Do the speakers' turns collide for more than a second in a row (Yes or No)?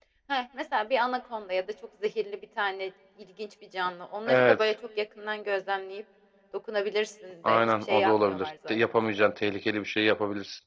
Yes